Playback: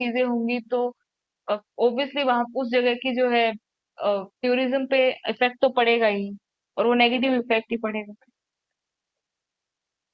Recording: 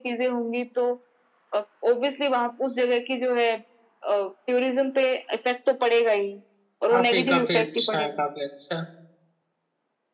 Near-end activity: present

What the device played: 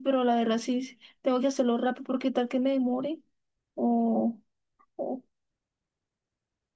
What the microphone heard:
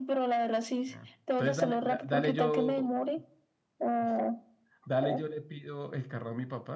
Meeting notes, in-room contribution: present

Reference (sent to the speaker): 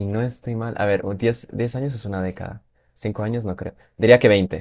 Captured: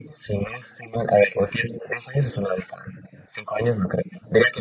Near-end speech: none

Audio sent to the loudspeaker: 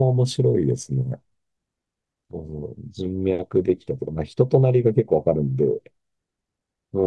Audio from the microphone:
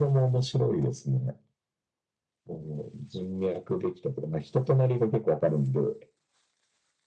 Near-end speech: none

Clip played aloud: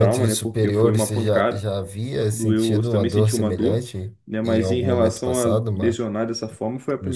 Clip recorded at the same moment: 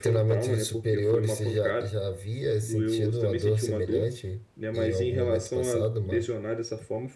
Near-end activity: none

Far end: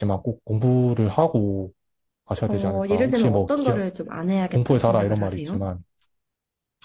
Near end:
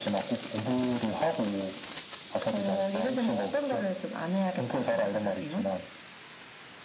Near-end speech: none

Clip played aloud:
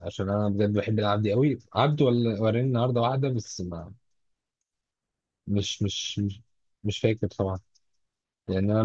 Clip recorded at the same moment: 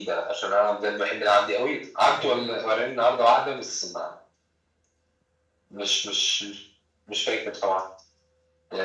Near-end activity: present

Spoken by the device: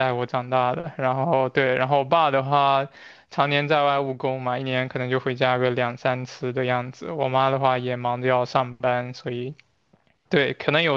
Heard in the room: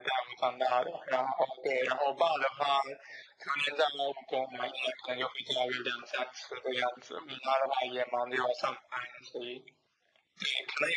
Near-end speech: none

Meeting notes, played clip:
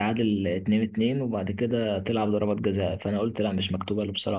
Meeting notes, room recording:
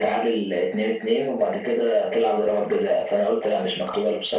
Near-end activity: none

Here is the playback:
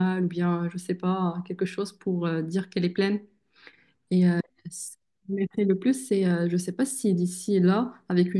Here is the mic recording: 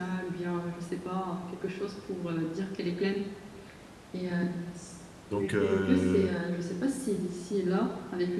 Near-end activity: present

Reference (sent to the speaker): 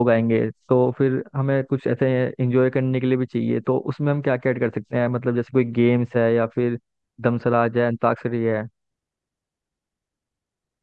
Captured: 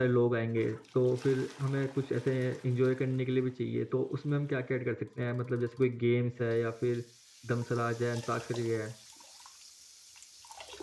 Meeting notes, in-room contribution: none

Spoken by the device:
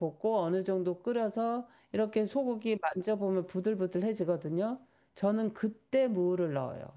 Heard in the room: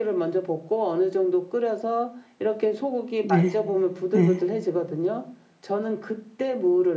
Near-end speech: present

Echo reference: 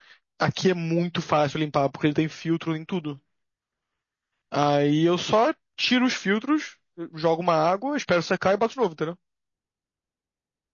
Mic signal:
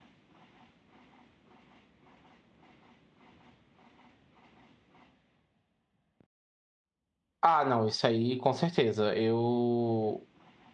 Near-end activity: present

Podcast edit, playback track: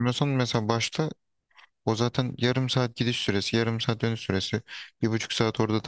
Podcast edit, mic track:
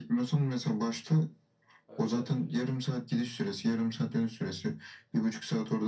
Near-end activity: present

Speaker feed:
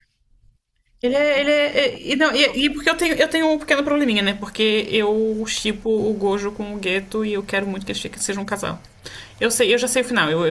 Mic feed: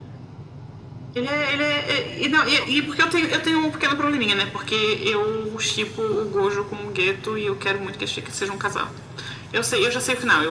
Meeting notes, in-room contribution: none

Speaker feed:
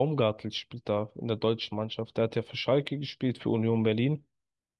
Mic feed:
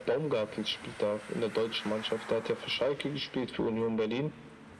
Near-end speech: none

